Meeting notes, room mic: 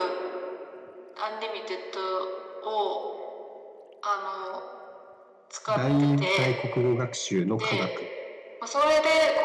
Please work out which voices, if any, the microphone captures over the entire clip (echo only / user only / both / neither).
both